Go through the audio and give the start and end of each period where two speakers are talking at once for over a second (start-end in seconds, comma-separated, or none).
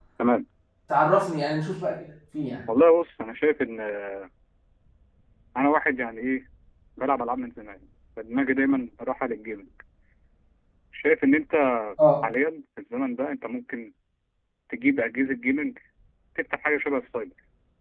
none